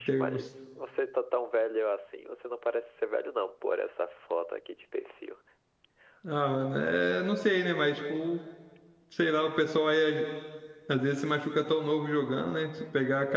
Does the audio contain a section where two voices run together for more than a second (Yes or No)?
No